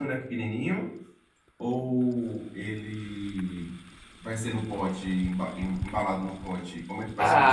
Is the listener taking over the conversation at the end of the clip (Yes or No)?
Yes